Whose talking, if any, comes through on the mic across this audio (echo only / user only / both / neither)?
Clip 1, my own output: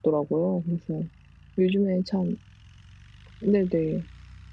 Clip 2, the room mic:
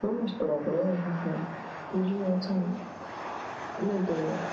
echo only